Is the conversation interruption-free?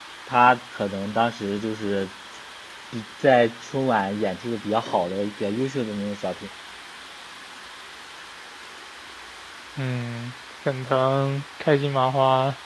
Yes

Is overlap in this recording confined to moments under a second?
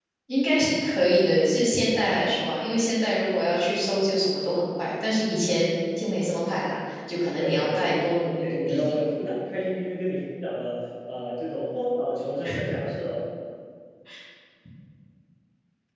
No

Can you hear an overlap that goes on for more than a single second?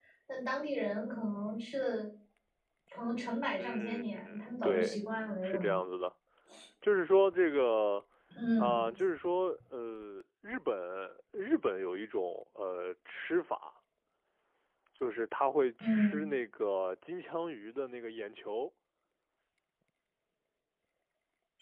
Yes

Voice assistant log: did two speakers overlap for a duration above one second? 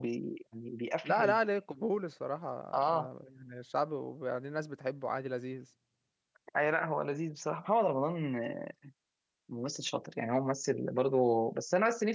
No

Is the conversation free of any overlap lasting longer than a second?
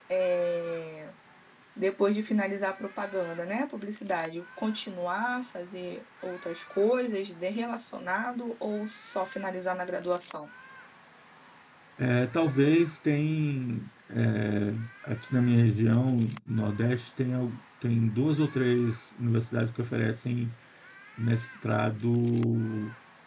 Yes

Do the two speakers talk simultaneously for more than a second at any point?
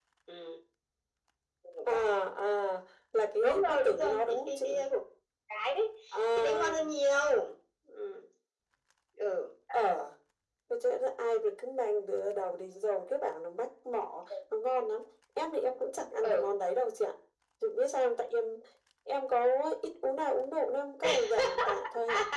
Yes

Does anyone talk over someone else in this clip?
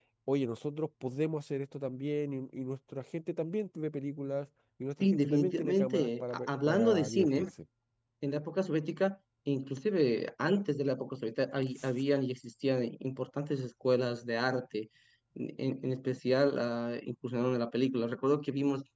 Yes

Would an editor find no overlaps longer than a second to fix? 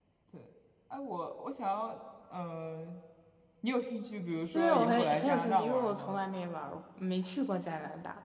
No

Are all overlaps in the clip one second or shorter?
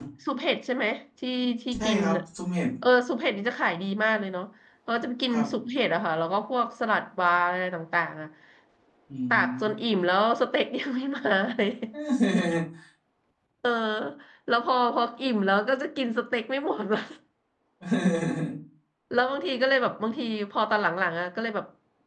Yes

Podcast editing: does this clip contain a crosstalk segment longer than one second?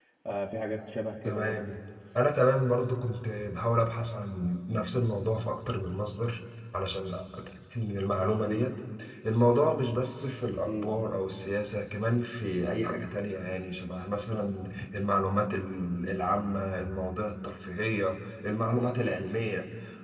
No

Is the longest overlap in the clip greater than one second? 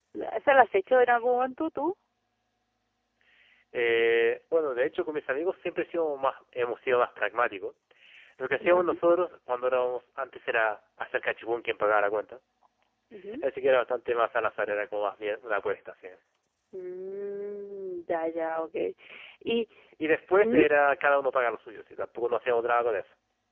No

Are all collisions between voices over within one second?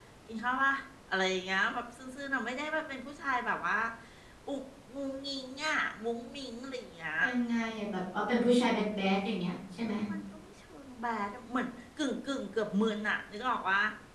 Yes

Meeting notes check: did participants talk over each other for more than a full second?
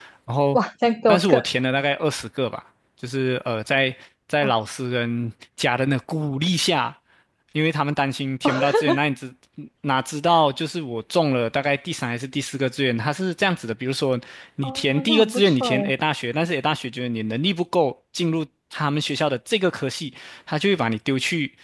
Yes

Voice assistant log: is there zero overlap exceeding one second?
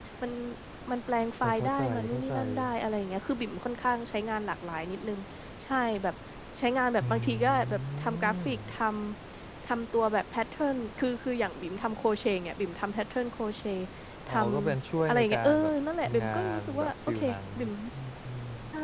No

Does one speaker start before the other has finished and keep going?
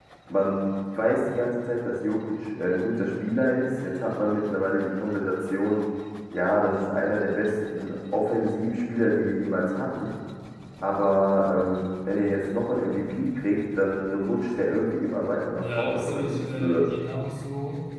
Yes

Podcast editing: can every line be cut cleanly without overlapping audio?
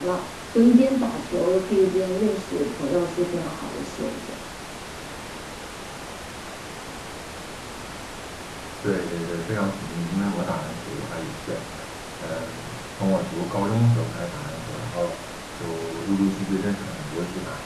Yes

